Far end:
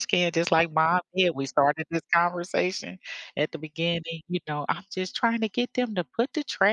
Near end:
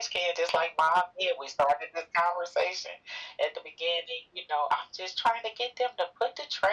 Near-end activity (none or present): none